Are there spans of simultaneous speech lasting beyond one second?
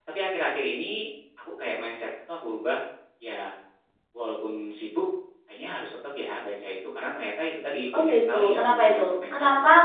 Yes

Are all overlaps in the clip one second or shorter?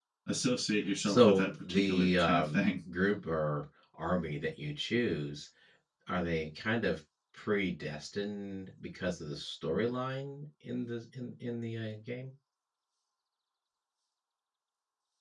No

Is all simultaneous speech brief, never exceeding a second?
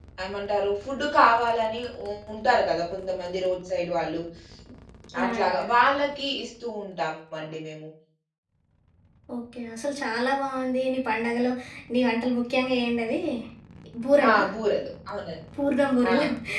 Yes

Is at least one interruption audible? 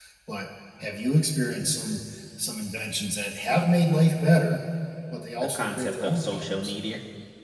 Yes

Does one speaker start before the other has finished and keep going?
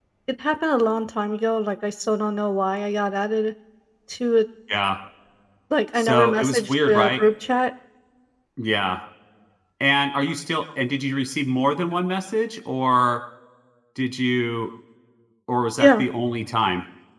Yes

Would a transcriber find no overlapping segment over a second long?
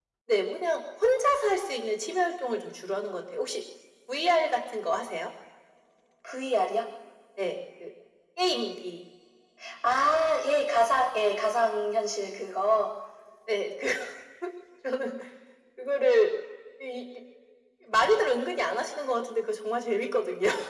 Yes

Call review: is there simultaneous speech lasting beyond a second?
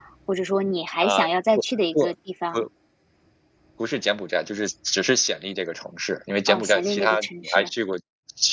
Yes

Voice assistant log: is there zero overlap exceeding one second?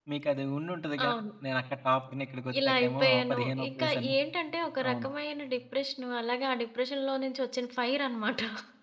No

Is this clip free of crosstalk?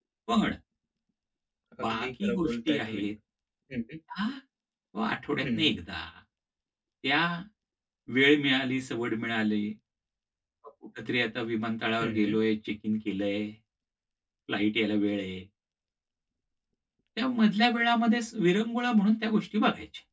No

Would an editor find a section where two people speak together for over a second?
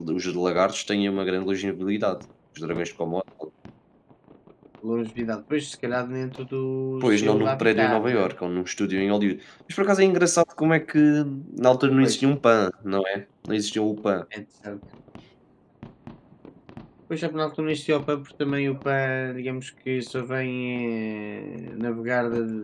Yes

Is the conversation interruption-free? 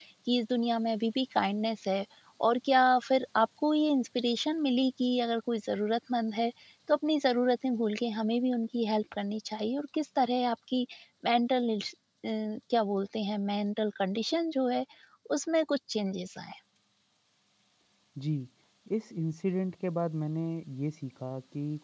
Yes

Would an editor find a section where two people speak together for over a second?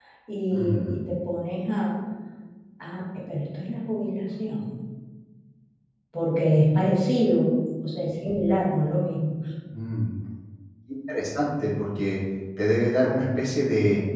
No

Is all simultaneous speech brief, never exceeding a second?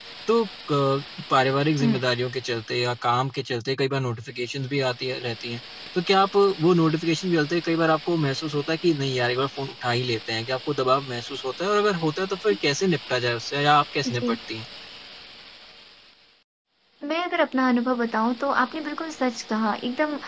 Yes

